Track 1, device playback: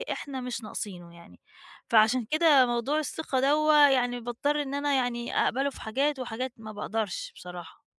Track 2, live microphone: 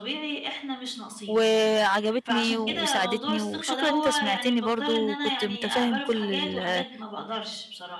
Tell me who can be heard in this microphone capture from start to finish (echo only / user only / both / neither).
both